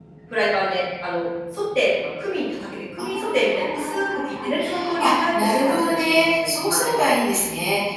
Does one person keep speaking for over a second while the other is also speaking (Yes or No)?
Yes